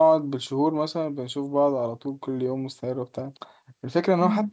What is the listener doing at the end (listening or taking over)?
listening